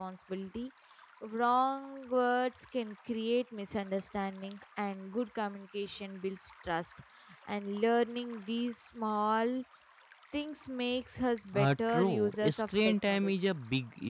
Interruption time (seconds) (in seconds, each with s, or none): 11.5 s